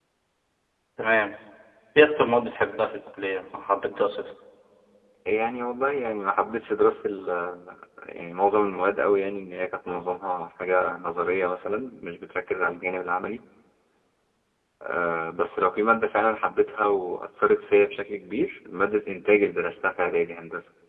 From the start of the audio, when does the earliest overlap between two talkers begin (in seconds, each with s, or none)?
none